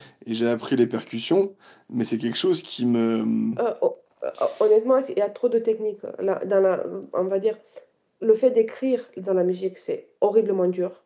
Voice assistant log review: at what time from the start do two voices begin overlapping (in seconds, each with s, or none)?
none